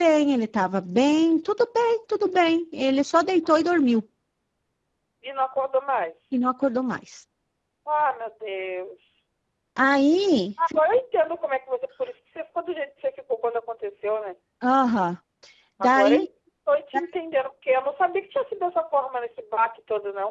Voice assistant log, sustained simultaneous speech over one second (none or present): none